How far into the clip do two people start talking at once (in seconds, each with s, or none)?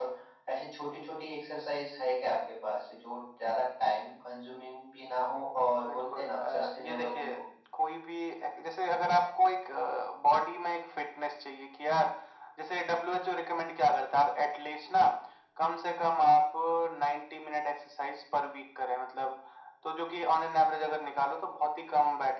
5.9 s